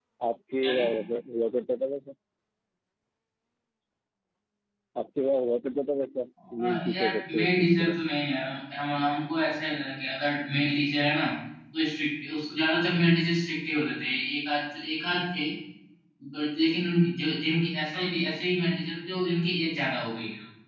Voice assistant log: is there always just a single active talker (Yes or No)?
No